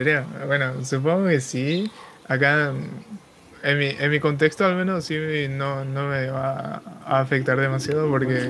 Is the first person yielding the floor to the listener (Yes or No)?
No